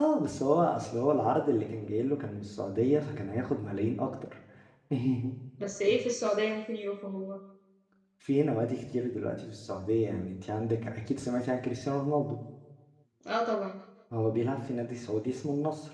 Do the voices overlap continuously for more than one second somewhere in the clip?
No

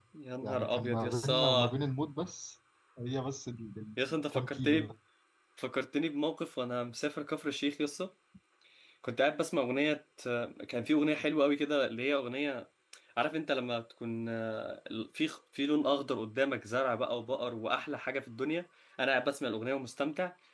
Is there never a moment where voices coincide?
No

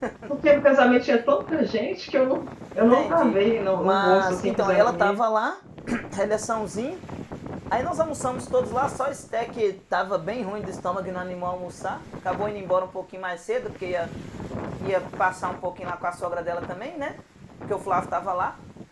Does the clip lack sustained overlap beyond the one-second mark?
No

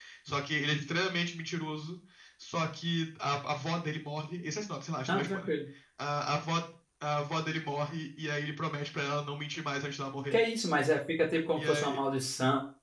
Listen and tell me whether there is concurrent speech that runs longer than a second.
No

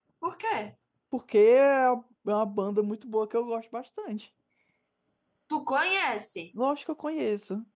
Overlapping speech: No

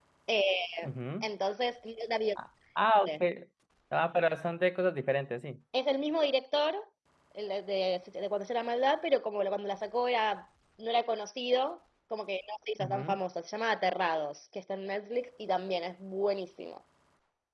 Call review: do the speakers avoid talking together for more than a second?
Yes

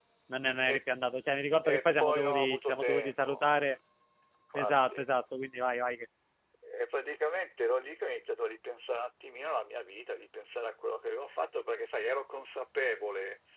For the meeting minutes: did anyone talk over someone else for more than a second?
Yes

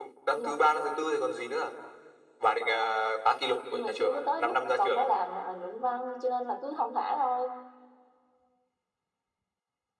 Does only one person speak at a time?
No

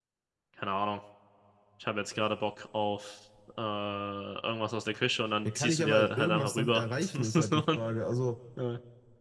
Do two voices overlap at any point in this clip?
Yes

